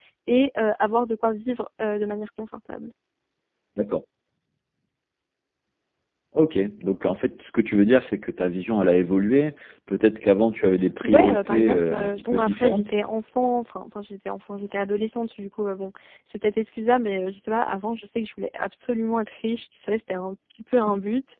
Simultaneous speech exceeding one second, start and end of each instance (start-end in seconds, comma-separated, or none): 11.0-12.9